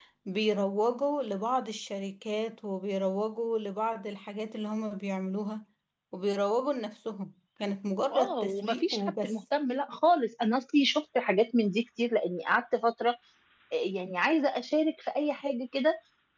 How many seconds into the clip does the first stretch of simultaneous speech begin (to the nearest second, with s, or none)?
8 s